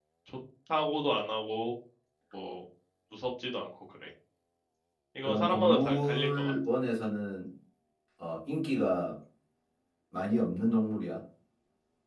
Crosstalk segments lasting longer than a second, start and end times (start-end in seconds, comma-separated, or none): 5.2-6.5